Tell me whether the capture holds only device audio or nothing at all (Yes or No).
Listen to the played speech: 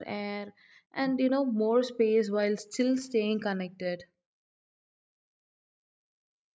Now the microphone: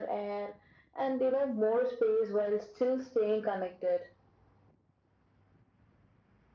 Yes